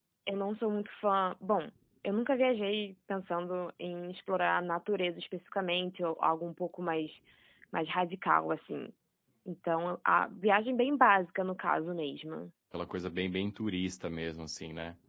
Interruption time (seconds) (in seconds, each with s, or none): none